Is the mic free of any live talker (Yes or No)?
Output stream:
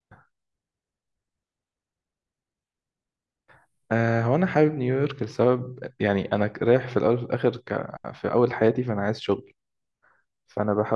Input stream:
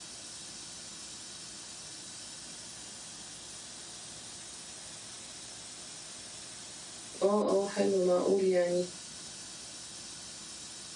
No